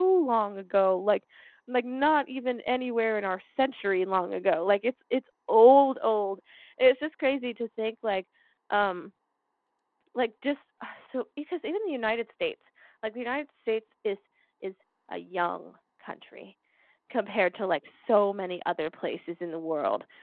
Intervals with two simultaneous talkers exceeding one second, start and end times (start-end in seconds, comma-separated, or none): none